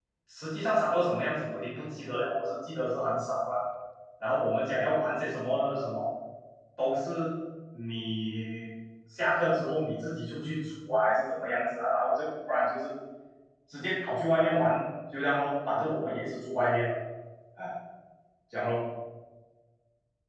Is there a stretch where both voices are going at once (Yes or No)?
No